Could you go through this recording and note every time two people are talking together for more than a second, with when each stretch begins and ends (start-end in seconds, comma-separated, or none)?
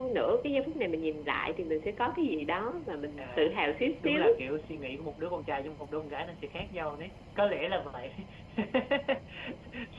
none